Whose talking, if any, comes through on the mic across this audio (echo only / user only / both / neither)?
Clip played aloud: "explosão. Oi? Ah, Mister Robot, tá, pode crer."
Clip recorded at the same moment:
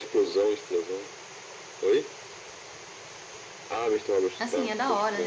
both